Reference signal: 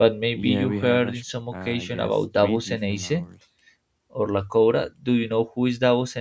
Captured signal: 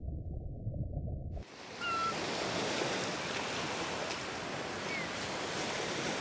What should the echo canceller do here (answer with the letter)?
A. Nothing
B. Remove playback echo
A